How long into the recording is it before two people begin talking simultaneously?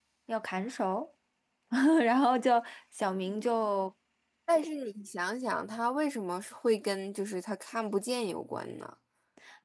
none

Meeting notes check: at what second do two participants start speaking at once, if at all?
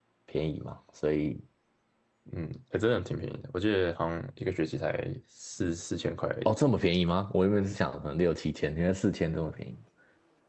none

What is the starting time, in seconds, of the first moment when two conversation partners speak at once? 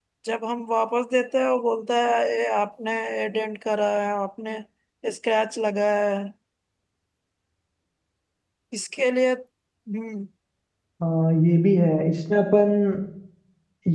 none

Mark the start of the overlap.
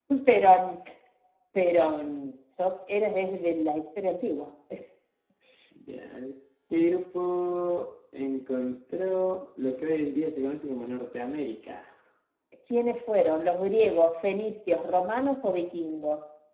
none

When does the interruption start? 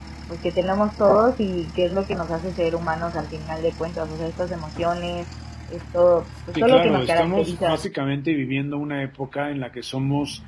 6.5 s

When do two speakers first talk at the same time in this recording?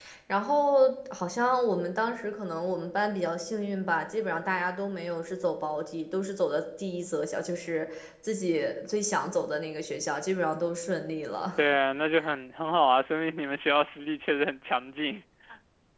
none

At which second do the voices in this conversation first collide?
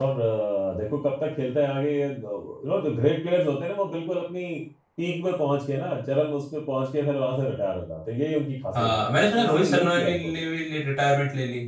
8.7 s

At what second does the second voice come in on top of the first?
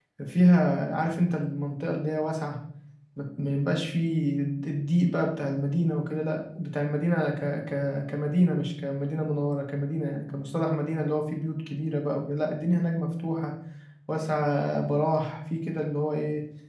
none

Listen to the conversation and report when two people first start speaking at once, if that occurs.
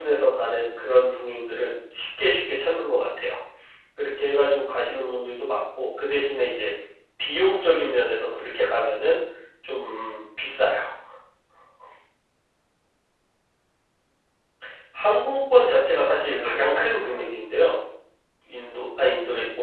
15.8 s

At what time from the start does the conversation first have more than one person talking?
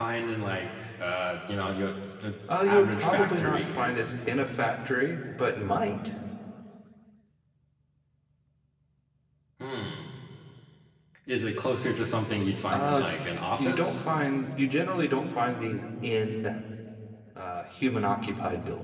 2.6 s

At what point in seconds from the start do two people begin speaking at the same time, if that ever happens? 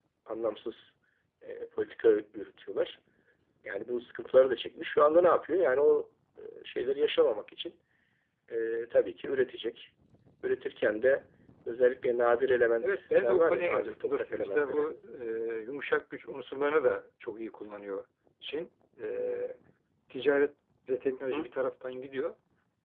12.8 s

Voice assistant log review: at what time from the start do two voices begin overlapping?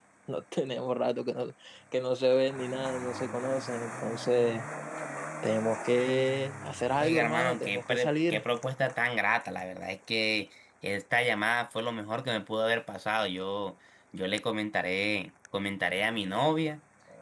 7.0 s

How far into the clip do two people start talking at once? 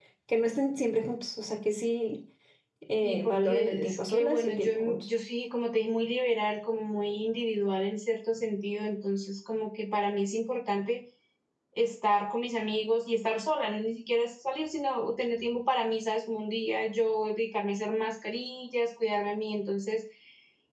3.0 s

